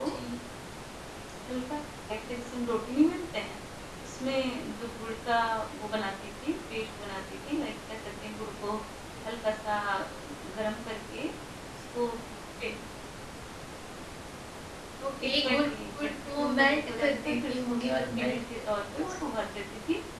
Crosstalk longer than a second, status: present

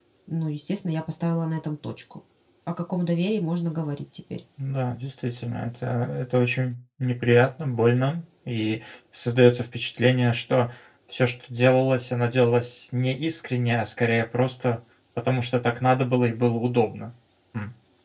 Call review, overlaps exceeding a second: none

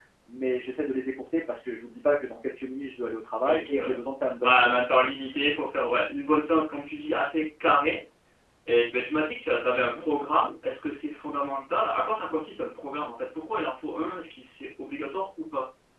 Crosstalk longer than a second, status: none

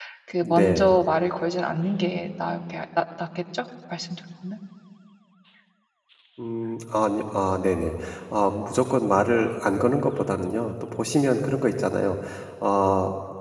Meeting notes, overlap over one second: none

